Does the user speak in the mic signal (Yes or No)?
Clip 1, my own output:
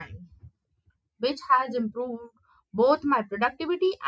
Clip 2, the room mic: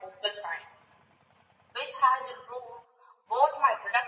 No